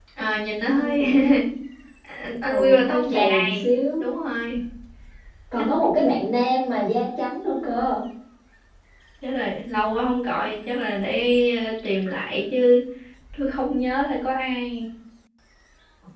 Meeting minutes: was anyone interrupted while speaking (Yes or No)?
Yes